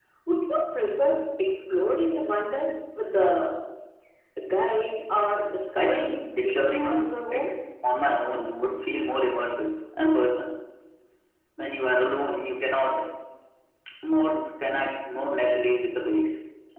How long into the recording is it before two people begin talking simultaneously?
5.8 s

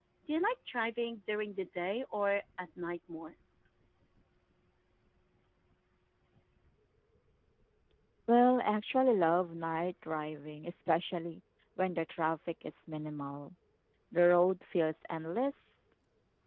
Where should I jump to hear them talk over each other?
none

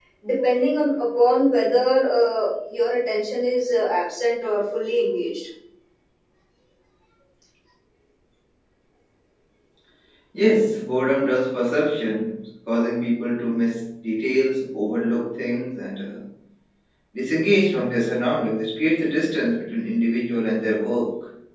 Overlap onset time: none

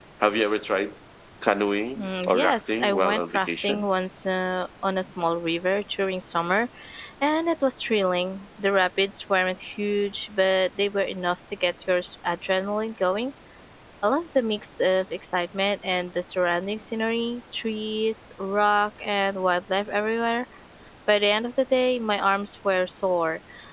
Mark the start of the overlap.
2.0 s

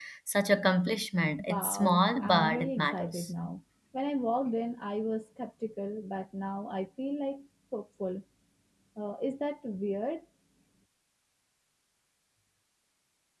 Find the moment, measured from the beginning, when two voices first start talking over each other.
1.4 s

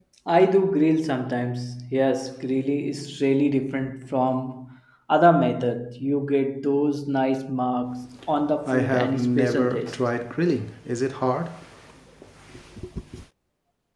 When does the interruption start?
8.7 s

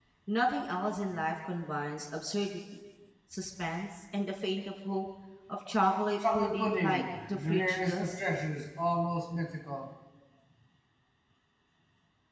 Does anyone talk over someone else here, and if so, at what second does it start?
6.3 s

